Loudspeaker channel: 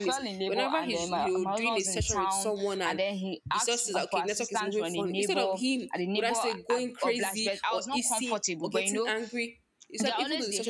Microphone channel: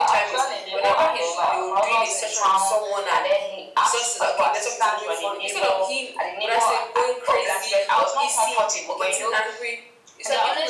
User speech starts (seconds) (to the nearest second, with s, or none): none